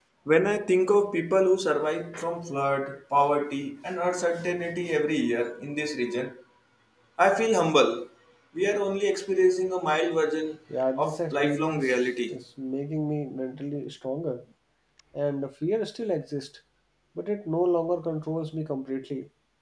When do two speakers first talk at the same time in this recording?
11.0 s

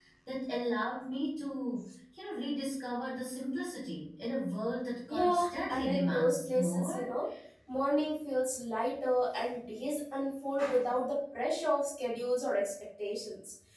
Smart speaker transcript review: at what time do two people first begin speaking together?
5.1 s

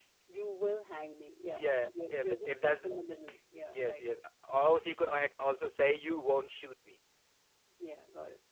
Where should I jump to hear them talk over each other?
1.6 s

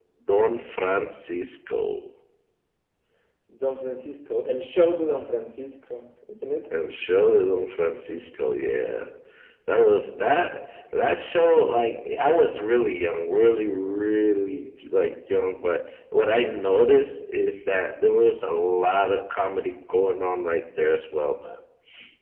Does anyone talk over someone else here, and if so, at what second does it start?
none

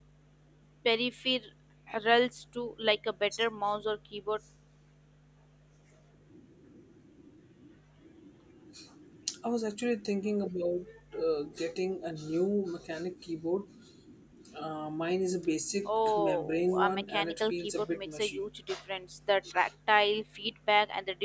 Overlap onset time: 16.2 s

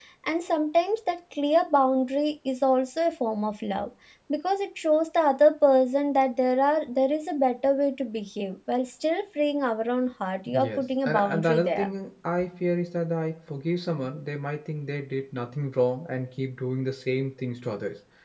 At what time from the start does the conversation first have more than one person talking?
10.5 s

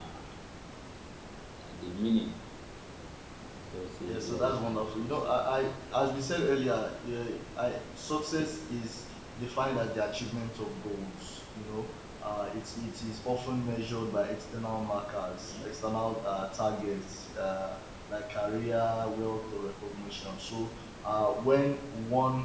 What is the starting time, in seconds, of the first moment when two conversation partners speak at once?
4.1 s

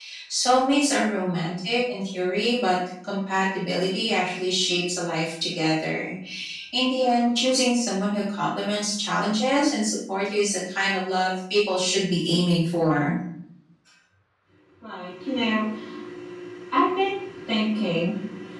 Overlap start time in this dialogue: none

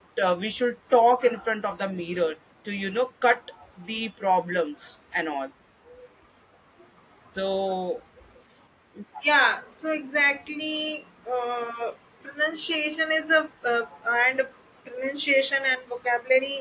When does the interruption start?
none

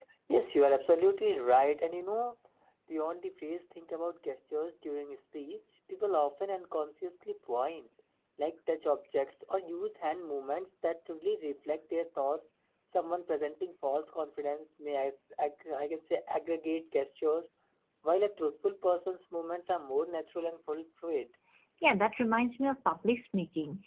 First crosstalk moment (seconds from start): none

